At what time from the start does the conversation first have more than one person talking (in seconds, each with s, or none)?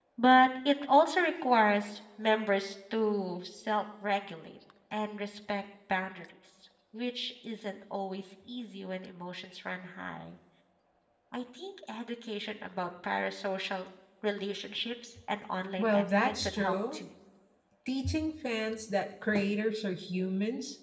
15.8 s